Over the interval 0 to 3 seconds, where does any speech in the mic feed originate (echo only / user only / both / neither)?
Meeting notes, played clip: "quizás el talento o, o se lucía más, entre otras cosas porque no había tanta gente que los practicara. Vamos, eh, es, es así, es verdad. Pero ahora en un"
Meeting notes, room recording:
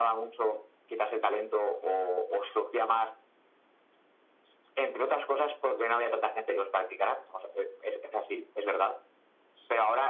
echo only